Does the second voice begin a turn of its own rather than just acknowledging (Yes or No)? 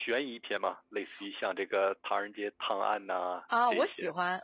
Yes